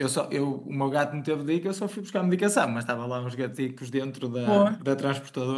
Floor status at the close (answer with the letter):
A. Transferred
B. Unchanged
B